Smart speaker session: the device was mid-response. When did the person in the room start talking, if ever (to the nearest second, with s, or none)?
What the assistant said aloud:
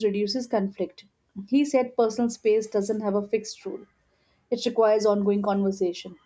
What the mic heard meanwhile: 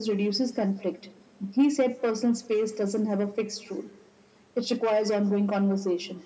none